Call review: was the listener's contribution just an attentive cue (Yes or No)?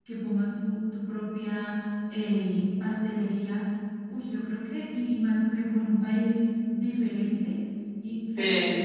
Yes